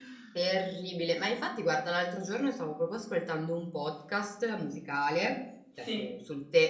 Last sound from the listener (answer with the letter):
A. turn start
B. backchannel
B